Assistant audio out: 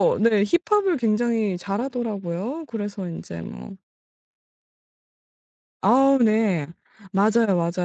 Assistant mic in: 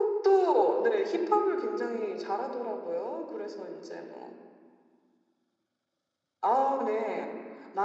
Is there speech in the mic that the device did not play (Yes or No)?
No